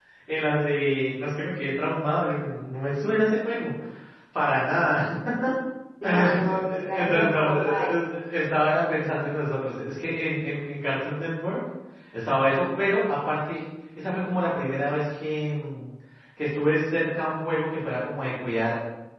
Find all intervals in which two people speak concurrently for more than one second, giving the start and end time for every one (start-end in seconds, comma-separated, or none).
6.0-7.9